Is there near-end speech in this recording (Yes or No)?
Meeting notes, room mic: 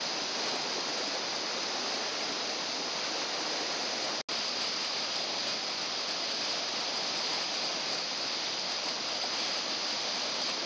No